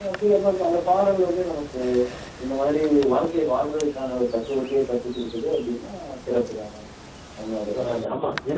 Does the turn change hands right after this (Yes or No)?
Yes